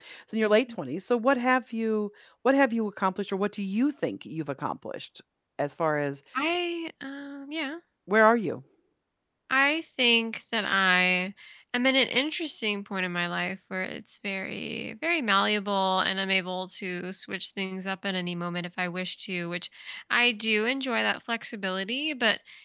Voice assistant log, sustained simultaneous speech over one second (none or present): none